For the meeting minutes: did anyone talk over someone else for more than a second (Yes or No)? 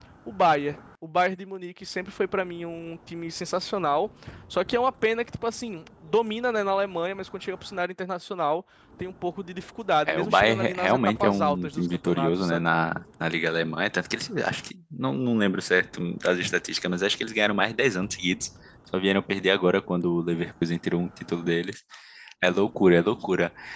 Yes